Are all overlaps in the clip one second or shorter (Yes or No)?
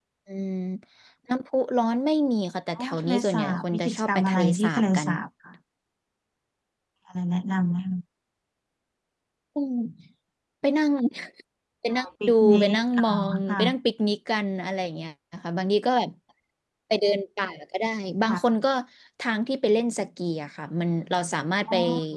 No